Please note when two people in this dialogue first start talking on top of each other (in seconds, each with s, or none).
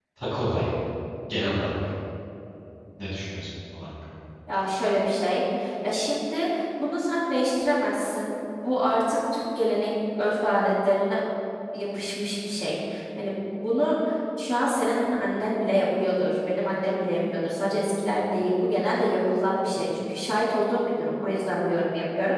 none